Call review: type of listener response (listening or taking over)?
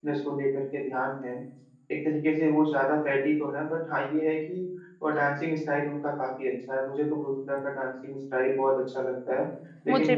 listening